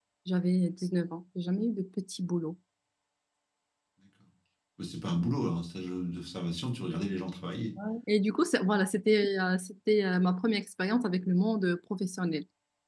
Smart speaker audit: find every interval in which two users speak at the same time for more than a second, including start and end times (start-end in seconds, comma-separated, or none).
none